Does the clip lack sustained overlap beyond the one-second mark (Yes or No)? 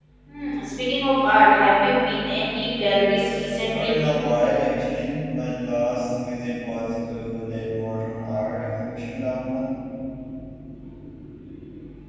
Yes